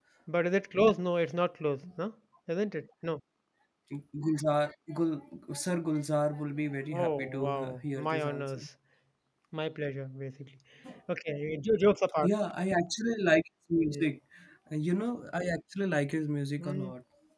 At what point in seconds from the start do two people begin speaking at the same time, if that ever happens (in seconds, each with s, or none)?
6.9 s